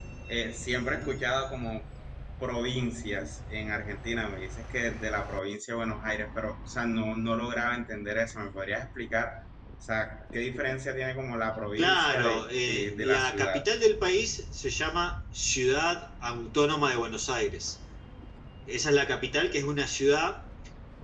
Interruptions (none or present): present